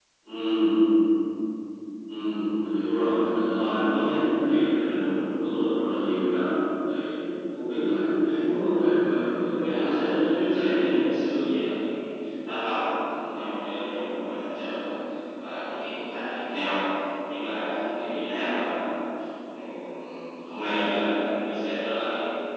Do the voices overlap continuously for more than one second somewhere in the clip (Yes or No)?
Yes